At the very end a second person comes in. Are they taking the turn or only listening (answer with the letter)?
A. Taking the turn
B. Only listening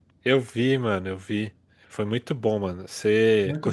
A